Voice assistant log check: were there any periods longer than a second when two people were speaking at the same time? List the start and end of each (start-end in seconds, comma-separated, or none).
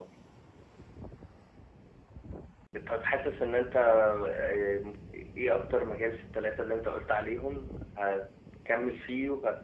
none